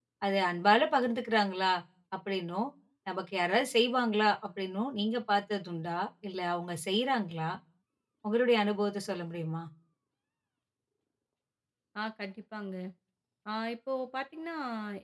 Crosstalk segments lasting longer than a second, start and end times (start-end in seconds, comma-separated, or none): none